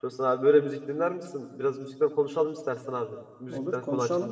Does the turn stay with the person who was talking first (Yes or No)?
No